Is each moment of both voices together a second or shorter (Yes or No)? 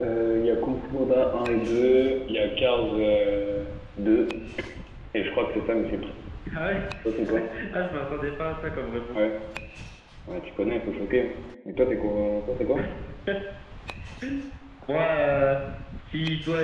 Yes